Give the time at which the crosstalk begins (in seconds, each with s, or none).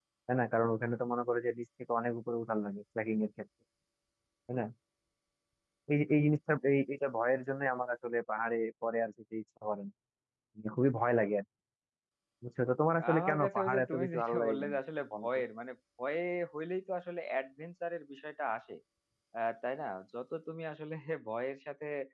13.1 s